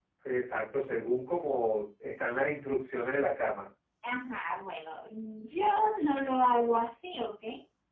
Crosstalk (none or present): none